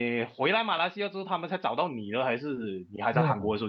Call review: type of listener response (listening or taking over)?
taking over